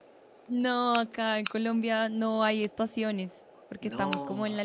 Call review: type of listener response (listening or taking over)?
listening